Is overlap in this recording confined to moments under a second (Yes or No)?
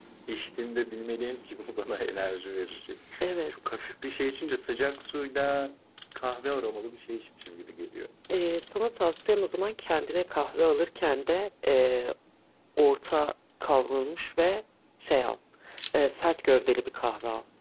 Yes